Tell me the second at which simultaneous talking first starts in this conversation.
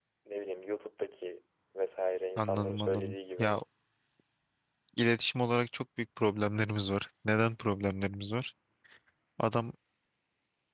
2 s

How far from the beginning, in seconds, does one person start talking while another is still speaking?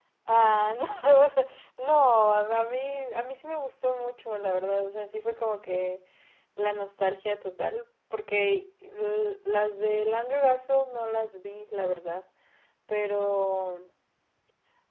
none

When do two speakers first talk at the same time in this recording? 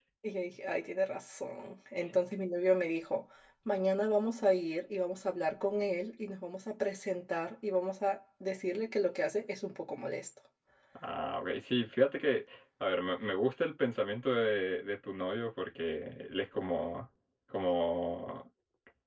none

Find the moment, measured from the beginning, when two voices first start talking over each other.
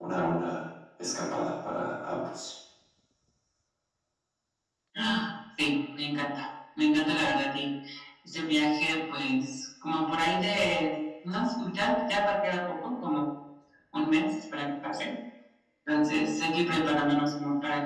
none

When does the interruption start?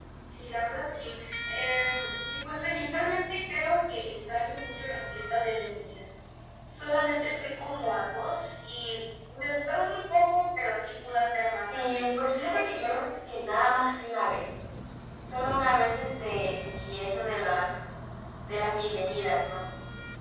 12 s

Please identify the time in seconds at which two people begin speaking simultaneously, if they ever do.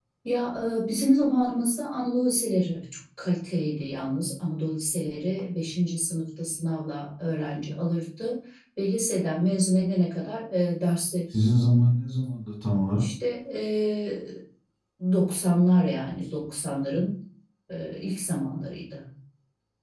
none

